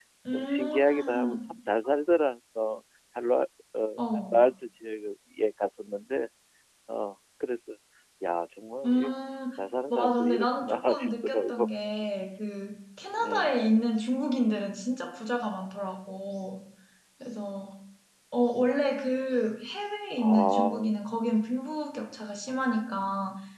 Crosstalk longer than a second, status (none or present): present